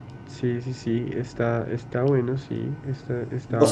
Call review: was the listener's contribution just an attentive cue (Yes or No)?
No